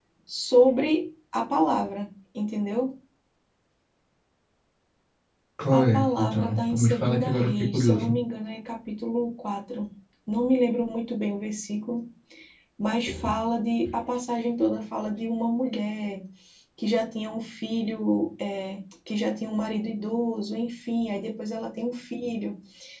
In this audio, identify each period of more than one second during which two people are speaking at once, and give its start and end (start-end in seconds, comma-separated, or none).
5.7-8.1